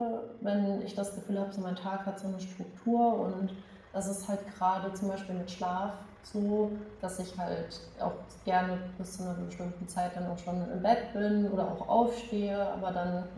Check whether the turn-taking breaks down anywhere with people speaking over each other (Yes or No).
No